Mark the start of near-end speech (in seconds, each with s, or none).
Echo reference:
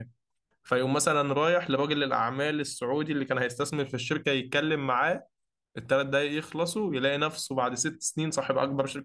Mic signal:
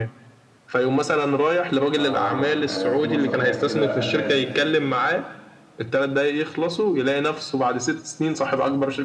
1.9 s